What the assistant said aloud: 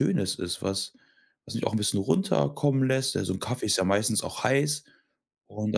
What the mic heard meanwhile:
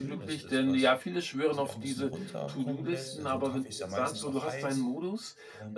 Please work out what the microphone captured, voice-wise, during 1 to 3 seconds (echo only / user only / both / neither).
both